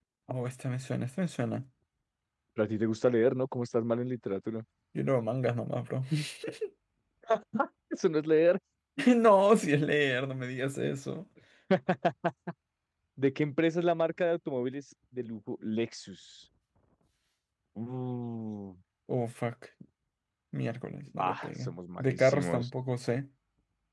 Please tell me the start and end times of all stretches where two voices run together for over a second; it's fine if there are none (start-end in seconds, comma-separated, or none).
21.1-22.7